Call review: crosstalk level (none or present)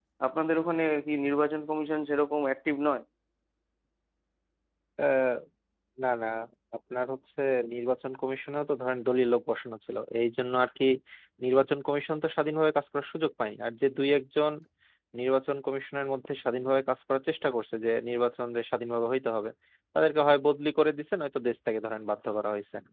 none